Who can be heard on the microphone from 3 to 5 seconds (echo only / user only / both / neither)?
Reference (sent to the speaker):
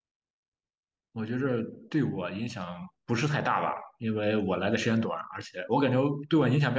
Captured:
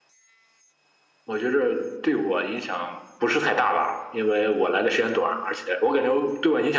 echo only